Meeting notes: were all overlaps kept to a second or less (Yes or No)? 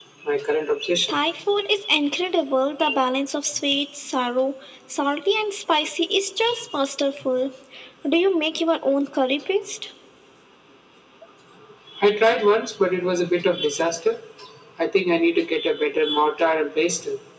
Yes